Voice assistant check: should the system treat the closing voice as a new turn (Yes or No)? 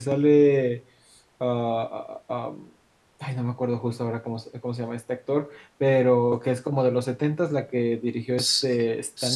Yes